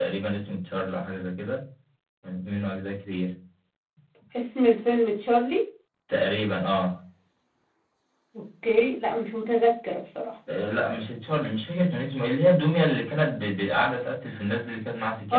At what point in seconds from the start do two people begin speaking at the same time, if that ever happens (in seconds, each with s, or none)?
none